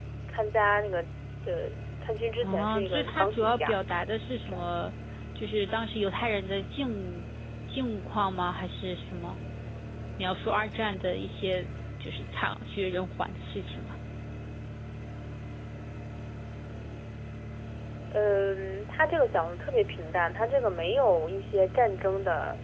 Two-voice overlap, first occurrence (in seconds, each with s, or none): 2.4 s